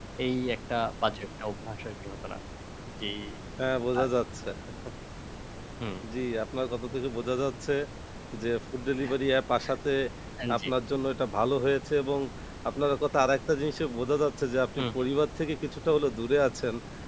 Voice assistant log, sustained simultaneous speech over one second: none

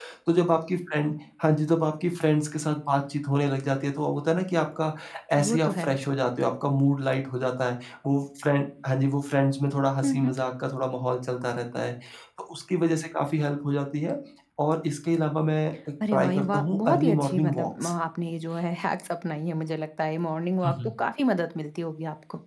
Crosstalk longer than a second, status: present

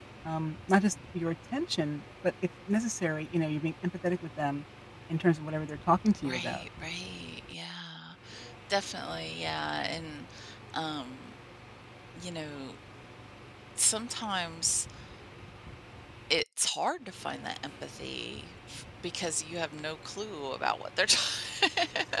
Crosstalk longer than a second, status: none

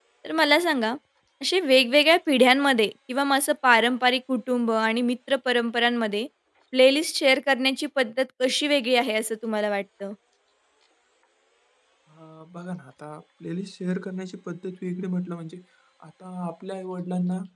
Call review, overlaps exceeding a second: none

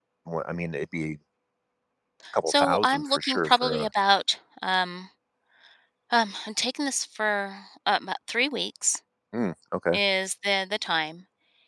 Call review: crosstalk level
present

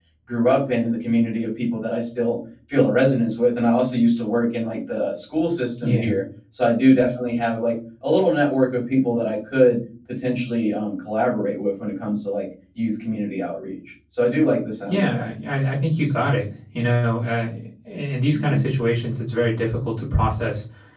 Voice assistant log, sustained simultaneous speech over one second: none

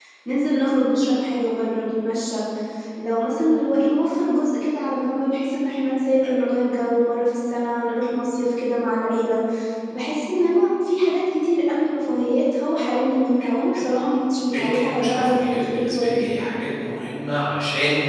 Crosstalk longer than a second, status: present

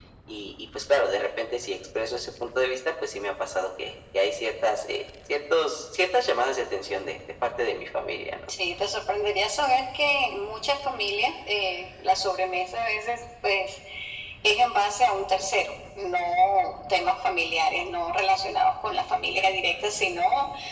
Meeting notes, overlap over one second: none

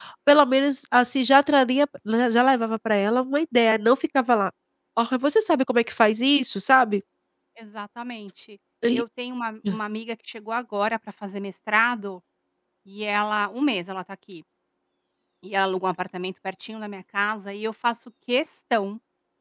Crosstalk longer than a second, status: none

